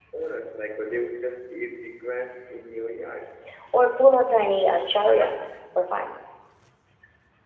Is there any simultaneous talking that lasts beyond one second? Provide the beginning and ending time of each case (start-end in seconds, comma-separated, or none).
none